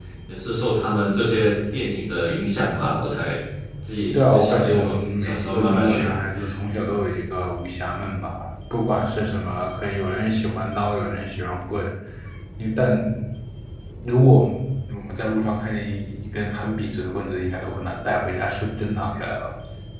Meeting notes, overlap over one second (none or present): present